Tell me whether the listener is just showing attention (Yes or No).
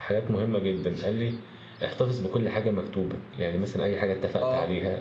Yes